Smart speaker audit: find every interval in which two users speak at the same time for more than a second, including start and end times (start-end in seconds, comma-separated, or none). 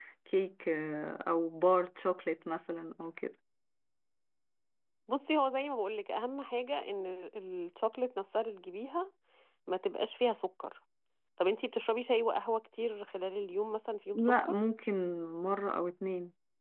none